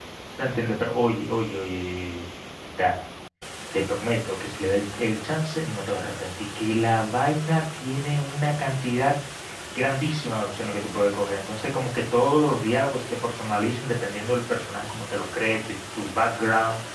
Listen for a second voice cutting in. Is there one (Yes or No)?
No